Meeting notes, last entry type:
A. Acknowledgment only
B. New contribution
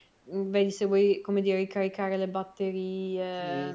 B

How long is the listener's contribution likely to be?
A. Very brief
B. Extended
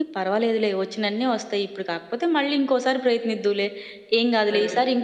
A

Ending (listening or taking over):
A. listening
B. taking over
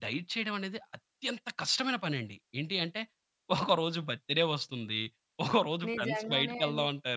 B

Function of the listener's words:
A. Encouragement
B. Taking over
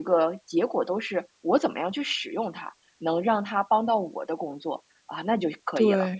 B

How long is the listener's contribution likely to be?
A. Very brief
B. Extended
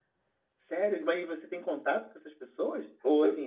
A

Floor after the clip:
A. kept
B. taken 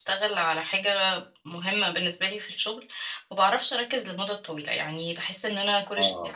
A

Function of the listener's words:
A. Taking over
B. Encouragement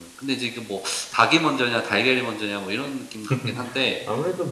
A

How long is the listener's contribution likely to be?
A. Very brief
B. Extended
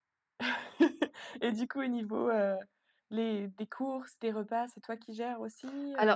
B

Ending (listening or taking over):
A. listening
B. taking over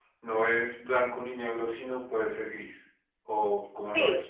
B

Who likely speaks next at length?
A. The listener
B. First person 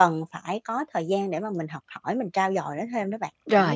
A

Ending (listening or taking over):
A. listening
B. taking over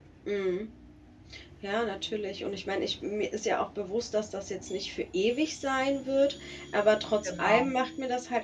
A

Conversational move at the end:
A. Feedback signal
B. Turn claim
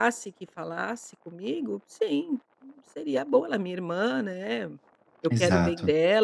A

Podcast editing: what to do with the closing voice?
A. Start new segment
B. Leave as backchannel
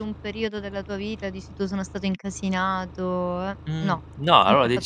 A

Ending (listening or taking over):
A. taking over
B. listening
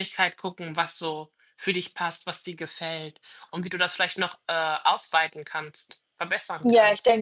A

